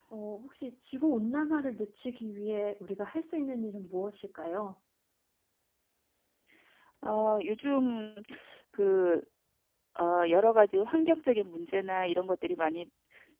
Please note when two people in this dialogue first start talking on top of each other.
none

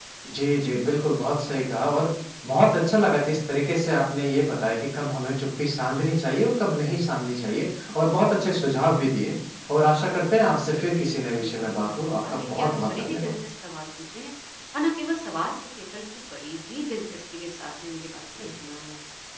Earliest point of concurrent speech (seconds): 10.8 s

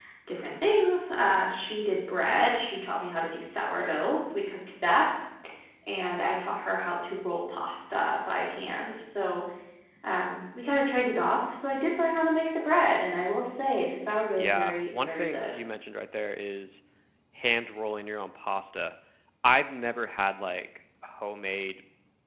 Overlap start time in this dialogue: 14.3 s

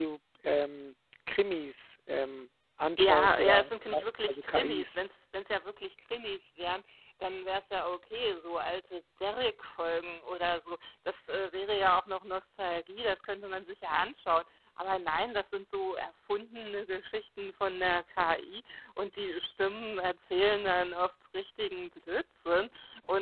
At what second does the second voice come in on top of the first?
3.0 s

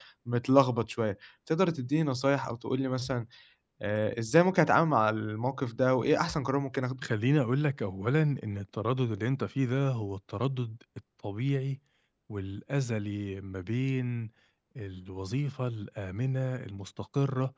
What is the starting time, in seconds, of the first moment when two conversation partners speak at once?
none

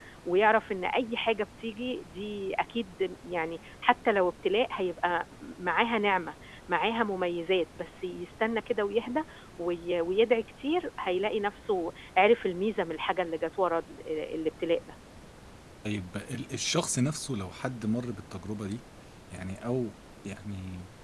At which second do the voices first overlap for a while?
none

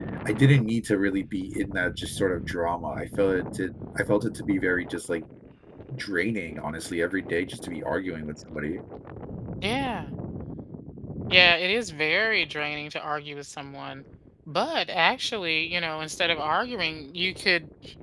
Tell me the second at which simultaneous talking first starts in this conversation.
none

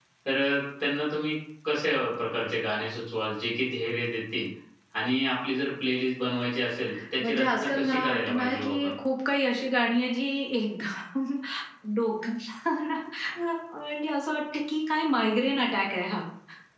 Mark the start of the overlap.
7.2 s

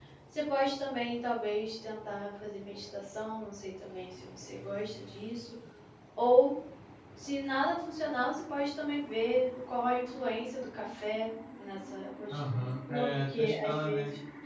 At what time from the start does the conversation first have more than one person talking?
12.3 s

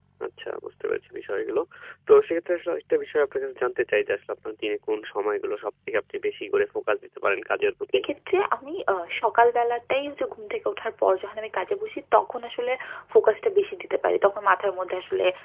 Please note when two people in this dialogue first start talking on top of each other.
none

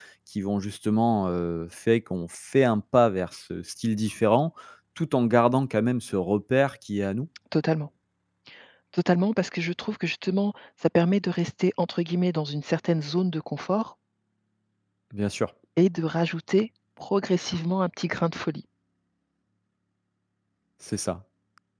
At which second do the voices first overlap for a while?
none

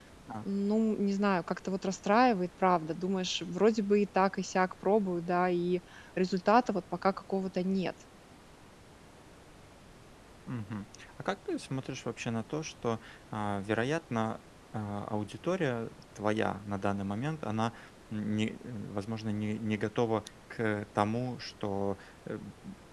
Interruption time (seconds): none

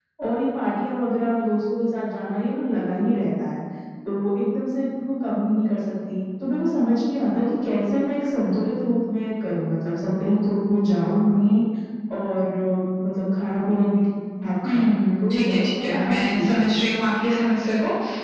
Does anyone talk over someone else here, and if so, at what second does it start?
14.6 s

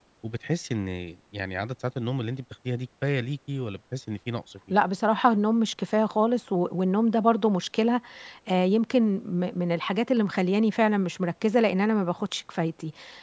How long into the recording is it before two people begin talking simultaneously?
none

